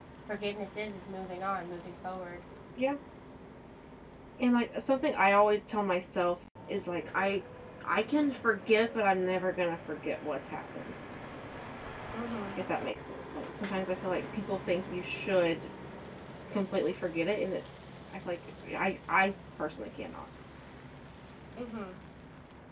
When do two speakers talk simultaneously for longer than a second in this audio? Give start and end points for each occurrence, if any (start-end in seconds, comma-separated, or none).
none